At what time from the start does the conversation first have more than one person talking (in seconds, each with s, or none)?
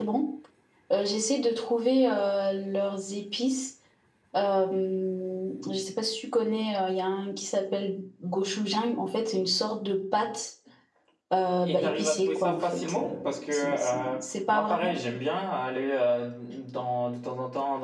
11.6 s